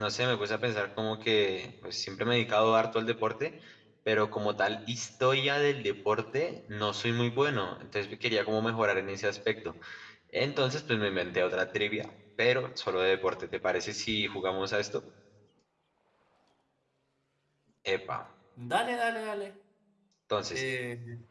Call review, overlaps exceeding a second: none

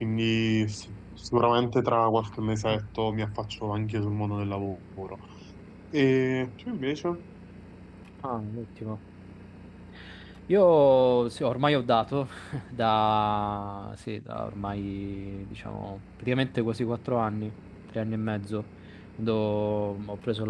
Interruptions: none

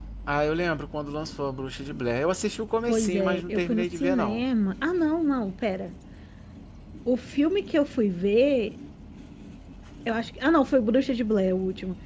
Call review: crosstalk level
present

